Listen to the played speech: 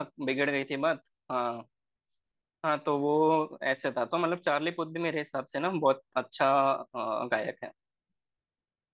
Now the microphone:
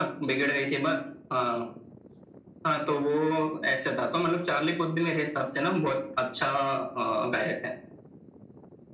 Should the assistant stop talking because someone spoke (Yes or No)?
No